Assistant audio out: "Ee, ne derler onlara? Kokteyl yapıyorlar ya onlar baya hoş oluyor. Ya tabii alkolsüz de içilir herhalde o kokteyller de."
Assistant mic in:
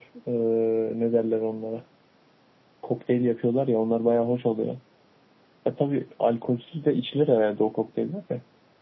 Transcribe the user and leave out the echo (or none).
none